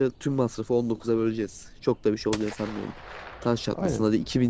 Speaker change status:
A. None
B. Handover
A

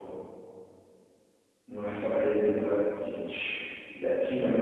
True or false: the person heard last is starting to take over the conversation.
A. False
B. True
B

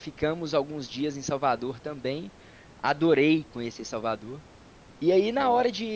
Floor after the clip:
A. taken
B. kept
B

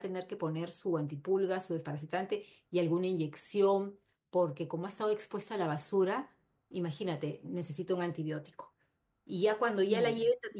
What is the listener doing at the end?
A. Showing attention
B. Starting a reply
A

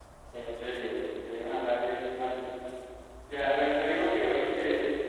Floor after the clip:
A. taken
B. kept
B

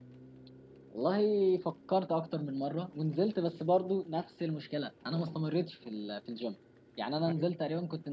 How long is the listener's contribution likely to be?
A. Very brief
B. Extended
A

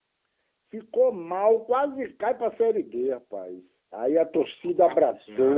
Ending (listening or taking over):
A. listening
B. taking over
A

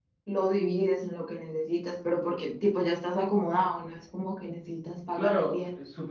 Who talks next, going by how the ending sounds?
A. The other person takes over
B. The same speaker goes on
A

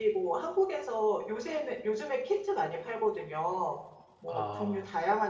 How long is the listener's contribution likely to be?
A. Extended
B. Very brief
B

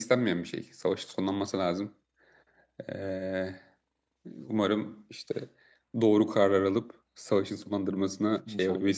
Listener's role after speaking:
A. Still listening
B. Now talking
B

